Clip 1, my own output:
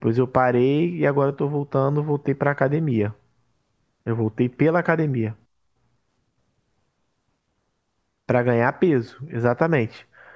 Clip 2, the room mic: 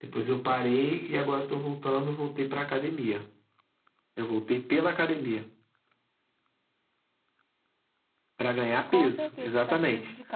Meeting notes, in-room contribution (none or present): present